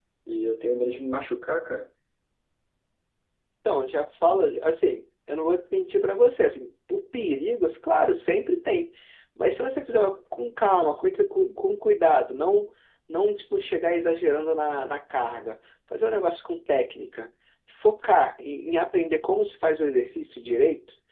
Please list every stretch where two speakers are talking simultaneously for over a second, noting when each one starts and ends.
none

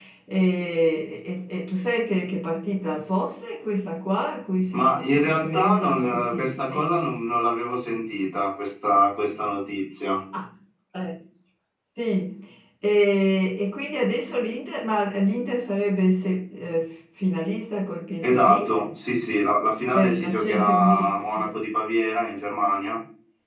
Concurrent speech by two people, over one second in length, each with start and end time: 4.7-6.8, 19.9-21.5

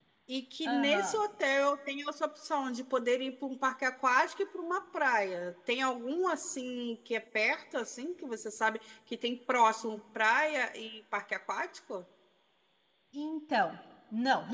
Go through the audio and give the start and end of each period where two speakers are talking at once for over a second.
none

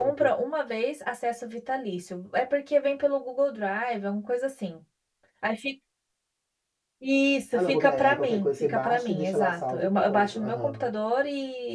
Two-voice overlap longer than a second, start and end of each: 7.5-10.9

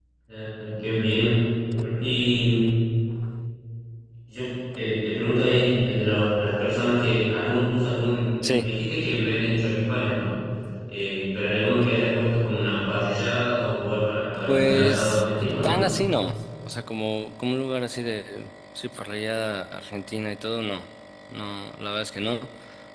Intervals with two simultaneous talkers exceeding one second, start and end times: 14.5-15.8

